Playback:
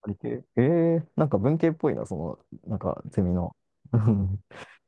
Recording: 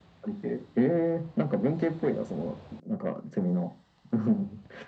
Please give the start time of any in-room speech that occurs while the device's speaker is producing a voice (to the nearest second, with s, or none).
none